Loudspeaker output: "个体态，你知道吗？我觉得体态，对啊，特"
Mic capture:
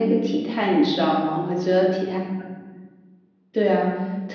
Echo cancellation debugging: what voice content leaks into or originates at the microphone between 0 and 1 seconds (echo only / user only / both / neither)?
echo only